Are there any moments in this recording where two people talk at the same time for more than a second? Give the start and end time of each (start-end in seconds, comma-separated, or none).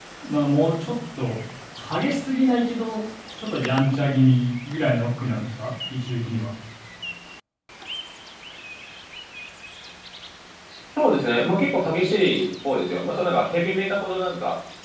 none